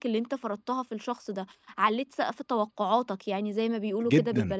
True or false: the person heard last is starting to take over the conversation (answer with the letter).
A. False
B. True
B